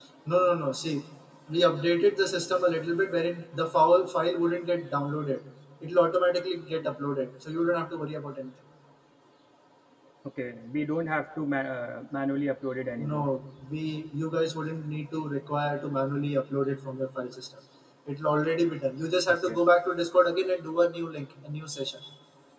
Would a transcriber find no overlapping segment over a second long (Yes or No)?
Yes